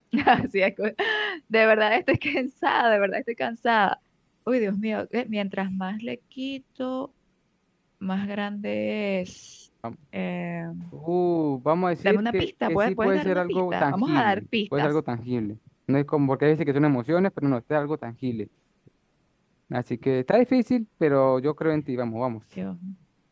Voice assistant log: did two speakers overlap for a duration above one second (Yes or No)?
Yes